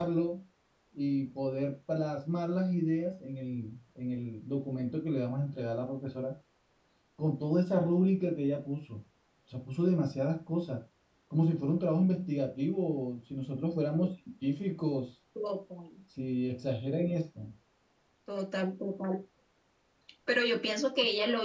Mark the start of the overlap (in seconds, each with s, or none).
none